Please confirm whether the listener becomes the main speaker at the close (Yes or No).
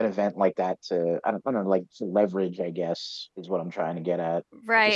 Yes